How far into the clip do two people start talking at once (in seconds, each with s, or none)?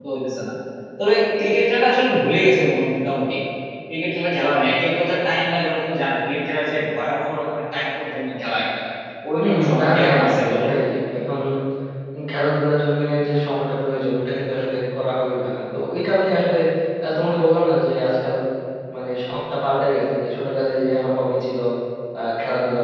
9.4 s